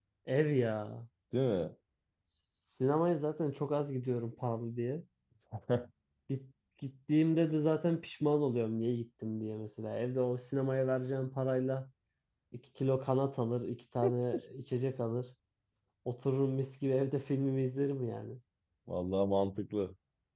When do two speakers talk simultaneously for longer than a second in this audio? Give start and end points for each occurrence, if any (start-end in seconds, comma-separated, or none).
none